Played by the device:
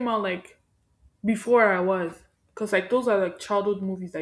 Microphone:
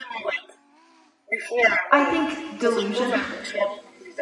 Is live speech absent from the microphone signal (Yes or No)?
No